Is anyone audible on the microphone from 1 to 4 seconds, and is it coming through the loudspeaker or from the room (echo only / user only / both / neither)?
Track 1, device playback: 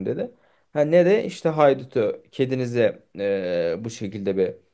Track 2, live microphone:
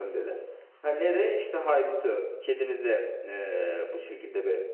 echo only